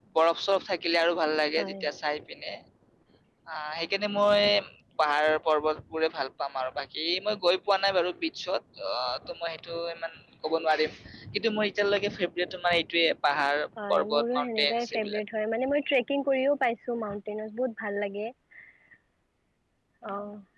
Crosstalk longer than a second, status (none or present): present